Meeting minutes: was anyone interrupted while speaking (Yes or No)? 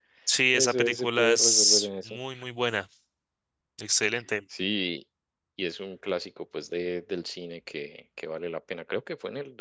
Yes